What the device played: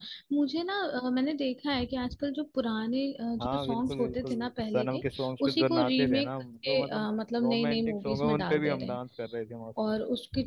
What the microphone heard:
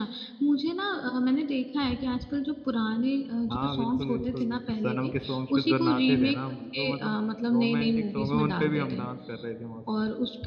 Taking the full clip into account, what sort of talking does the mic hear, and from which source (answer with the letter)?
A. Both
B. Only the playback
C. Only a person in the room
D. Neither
B